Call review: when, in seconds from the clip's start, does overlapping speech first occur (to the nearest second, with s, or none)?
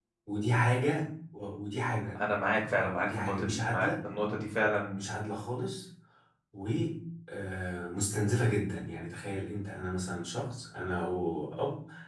3 s